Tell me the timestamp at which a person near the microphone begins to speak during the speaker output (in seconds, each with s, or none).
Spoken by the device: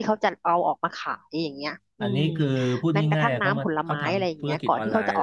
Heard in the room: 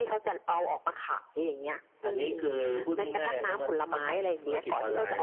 none